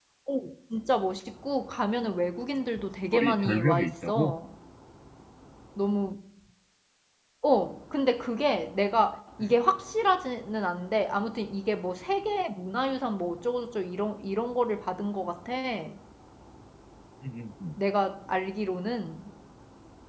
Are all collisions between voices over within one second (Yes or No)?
No